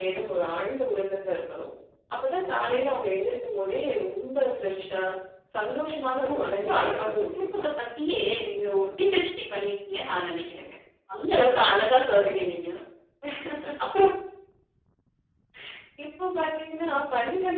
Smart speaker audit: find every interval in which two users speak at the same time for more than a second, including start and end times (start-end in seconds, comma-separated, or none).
6.2-7.7